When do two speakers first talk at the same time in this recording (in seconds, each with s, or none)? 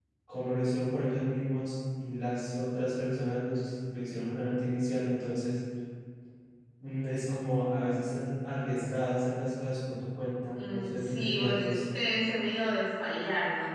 10.6 s